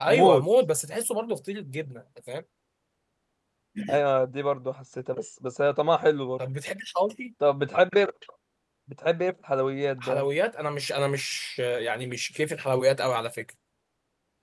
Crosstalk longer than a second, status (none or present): none